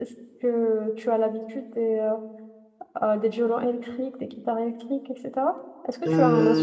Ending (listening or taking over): taking over